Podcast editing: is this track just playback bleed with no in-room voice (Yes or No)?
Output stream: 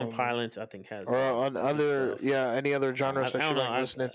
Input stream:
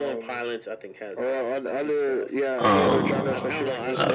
No